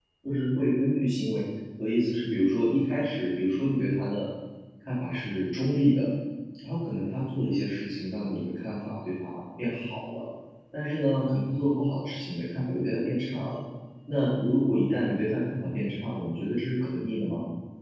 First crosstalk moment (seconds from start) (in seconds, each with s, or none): none